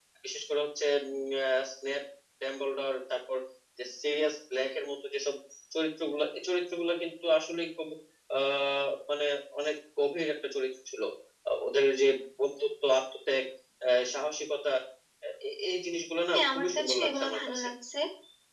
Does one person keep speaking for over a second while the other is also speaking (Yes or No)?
Yes